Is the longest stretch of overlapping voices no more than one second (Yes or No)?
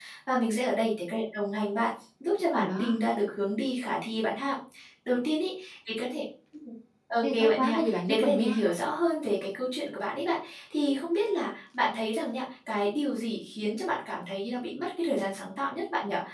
No